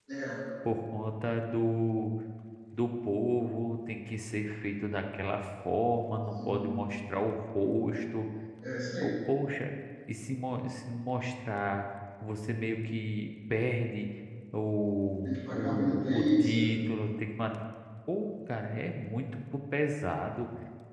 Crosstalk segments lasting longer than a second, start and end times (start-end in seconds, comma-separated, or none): 15.2-16.6